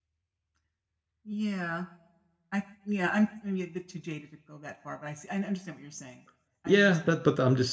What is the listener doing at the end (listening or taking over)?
taking over